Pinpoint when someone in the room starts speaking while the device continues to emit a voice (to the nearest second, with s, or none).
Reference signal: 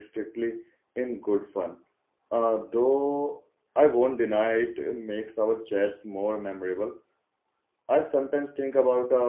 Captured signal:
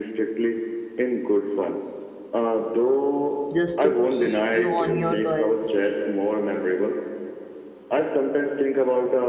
4 s